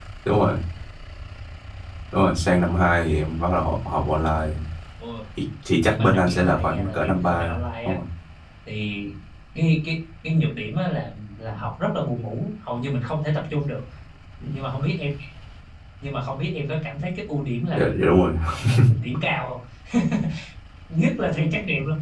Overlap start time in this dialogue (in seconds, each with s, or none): 5.9 s